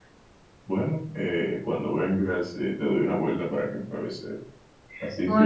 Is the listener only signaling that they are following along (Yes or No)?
Yes